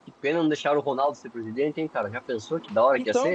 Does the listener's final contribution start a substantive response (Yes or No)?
Yes